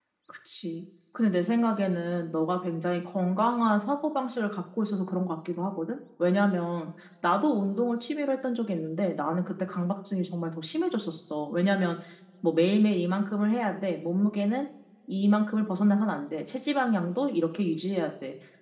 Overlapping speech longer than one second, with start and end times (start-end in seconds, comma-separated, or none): none